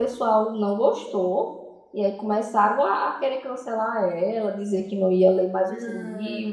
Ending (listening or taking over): listening